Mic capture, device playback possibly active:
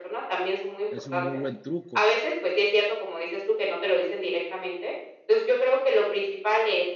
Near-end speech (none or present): present